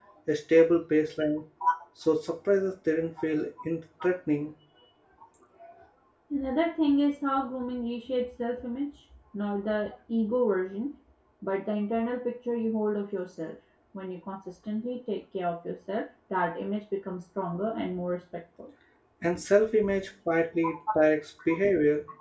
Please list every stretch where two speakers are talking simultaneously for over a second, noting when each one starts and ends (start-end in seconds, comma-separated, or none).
none